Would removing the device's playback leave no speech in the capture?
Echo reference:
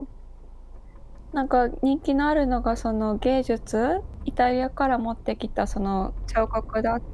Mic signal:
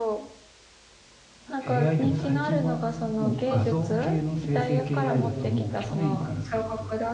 No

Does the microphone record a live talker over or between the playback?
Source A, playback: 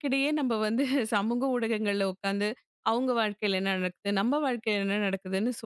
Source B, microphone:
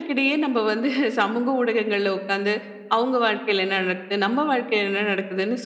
No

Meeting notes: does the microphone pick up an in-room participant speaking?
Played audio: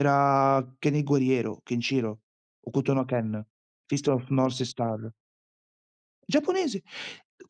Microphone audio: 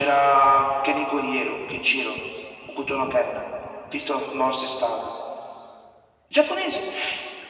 No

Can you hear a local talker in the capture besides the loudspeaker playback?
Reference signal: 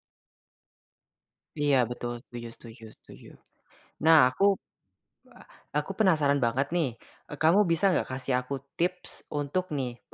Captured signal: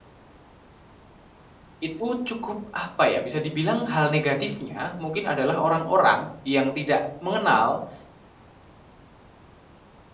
Yes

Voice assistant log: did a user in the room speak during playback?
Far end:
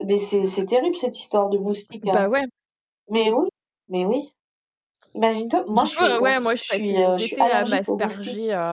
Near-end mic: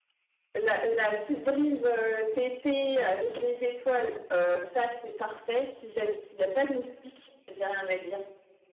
Yes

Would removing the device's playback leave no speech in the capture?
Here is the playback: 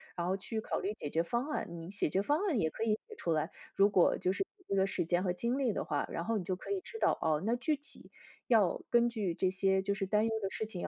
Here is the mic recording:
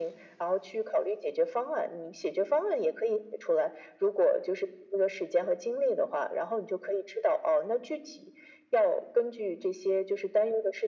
Yes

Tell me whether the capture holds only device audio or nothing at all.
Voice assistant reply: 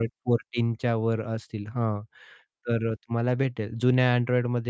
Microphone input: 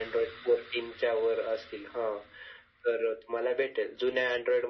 Yes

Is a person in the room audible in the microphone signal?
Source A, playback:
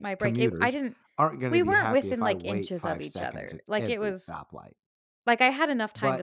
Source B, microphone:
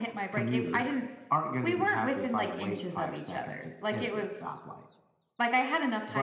No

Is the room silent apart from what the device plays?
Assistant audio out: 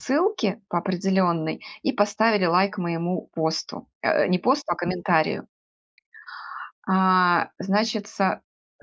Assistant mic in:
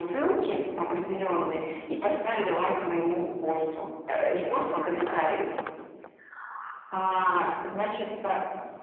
Yes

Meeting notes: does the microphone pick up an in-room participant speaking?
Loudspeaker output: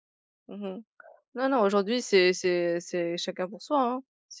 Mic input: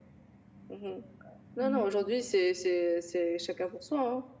Yes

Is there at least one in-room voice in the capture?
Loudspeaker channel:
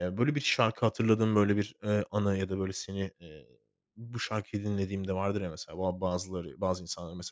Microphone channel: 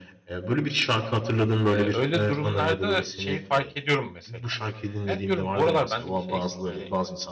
Yes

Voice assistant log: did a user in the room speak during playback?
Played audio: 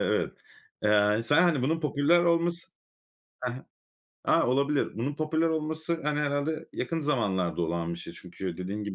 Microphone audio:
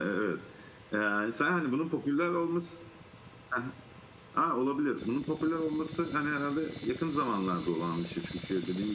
No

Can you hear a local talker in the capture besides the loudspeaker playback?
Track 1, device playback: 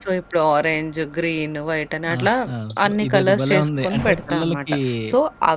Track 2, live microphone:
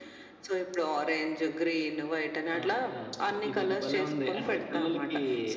No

